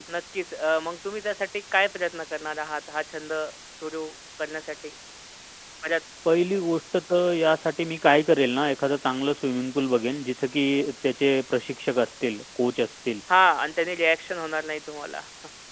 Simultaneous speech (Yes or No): No